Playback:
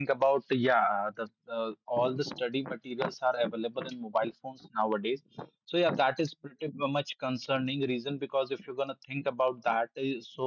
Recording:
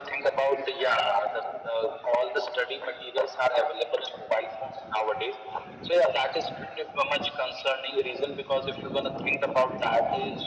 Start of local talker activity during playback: none

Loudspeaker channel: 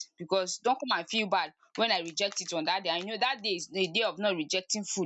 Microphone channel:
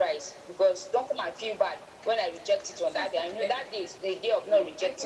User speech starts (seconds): 2.7 s

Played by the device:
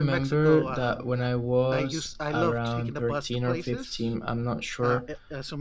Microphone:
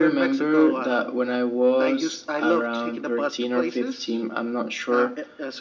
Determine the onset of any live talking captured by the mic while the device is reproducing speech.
none

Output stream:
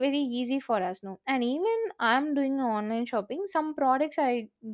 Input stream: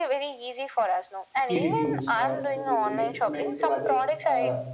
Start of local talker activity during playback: 1.4 s

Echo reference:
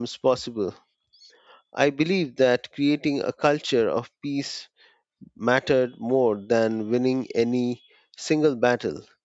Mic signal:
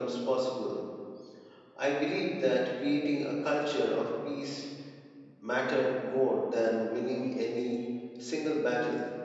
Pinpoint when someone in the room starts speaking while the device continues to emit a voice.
none

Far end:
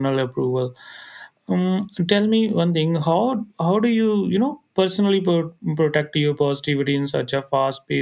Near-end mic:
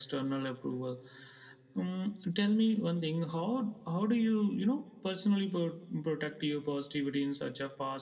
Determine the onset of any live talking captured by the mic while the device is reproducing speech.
none

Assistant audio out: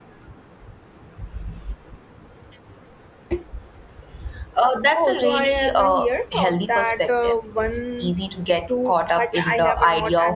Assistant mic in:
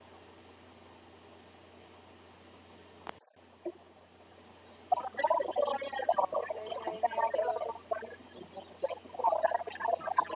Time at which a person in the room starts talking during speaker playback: 6.5 s

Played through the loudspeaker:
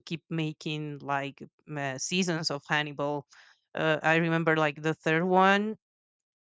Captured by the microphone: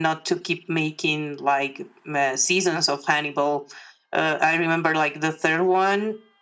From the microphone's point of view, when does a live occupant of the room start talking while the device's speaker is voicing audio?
none

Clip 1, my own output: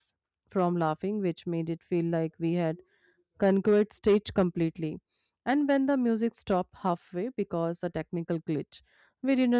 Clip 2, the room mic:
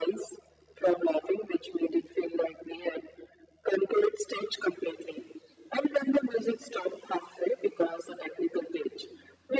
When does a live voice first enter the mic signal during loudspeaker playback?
none

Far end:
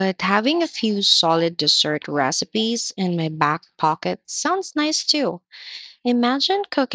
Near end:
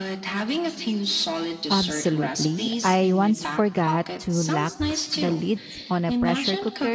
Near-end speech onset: 1.7 s

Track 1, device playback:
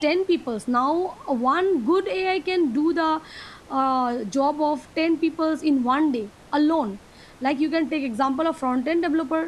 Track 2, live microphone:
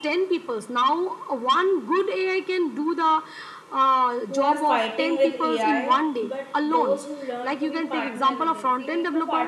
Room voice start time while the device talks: 4.3 s

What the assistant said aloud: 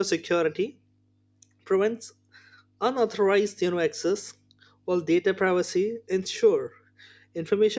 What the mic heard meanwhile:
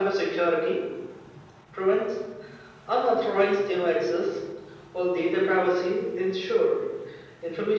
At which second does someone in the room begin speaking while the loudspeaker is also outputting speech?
none

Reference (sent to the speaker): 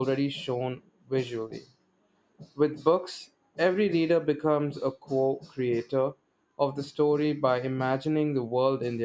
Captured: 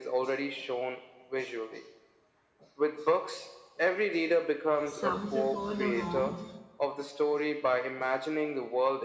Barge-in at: 4.8 s

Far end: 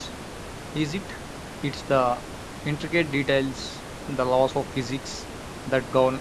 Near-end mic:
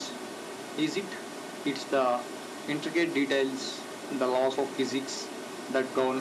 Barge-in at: none

